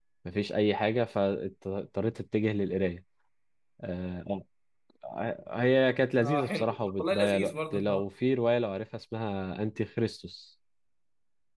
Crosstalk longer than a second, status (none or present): present